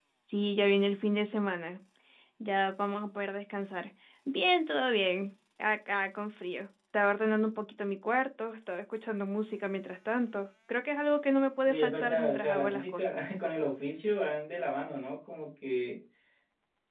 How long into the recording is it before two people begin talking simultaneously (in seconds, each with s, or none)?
11.7 s